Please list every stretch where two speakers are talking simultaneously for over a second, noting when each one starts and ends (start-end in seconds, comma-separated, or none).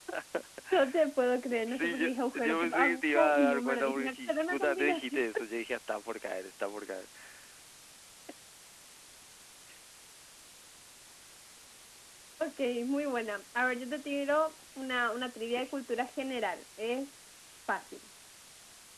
1.7-5.2